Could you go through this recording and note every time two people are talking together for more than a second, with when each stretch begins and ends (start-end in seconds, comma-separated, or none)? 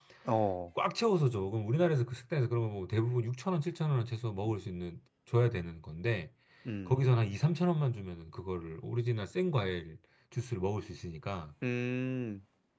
none